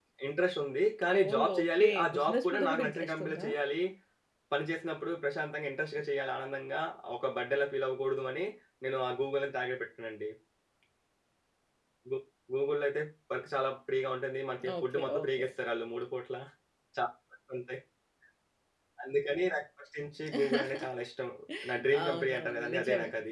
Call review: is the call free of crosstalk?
No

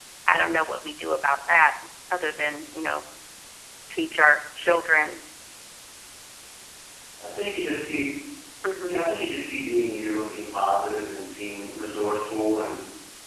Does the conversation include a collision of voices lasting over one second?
No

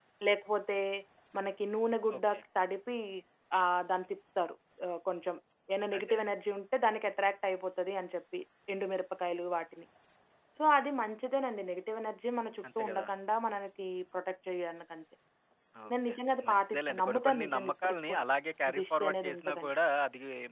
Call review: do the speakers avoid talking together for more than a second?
No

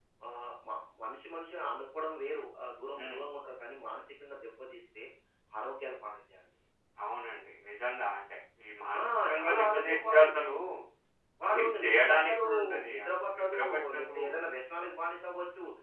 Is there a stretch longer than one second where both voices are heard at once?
Yes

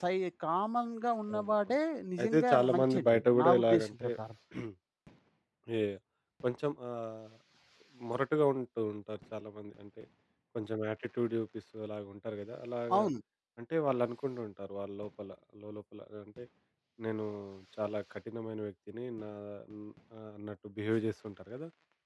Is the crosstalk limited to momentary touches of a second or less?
No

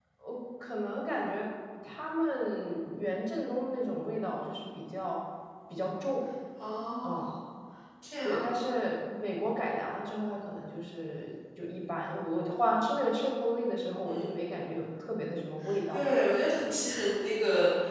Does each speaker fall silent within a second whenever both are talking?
Yes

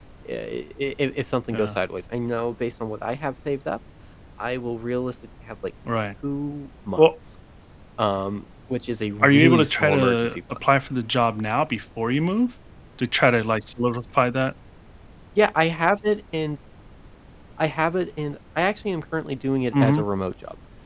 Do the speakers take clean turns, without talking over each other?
No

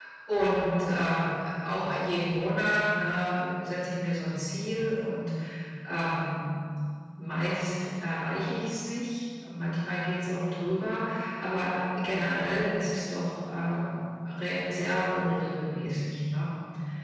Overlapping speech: No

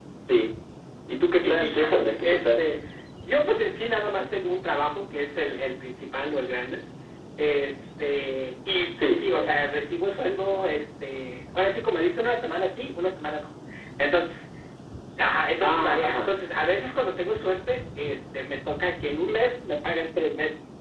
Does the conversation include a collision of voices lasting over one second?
Yes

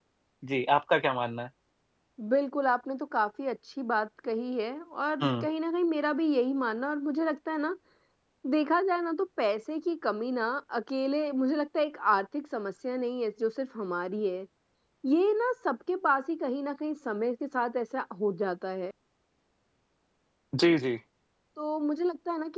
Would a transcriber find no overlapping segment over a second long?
Yes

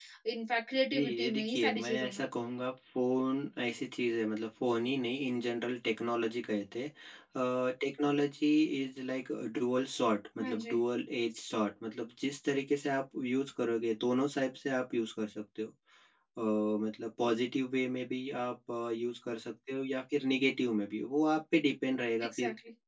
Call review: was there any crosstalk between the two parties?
Yes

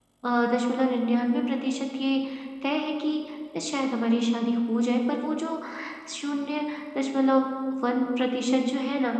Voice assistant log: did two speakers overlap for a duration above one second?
No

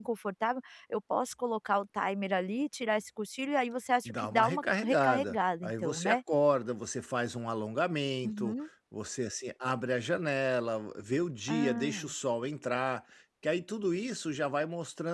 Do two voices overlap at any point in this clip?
Yes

